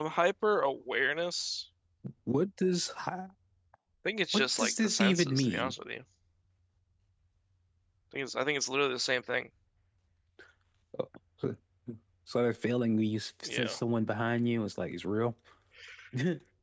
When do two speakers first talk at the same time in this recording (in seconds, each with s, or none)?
4.3 s